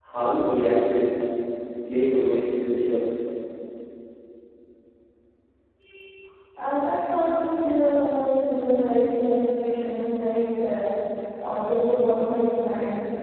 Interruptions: none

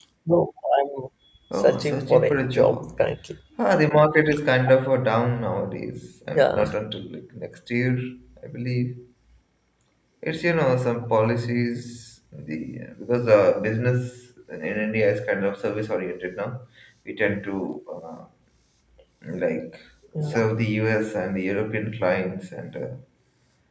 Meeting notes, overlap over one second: present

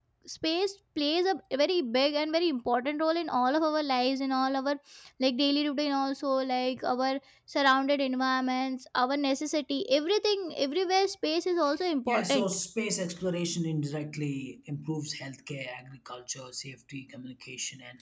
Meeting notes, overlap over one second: none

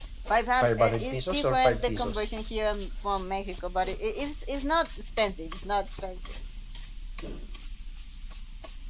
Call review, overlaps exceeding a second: present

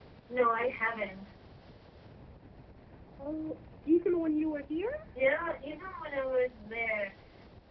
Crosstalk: none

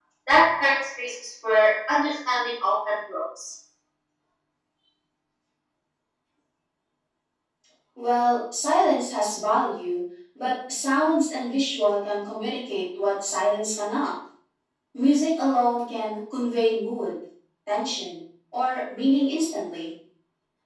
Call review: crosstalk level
none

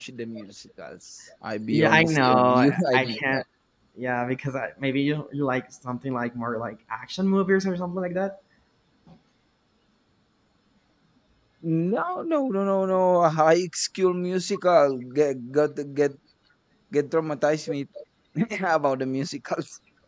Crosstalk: present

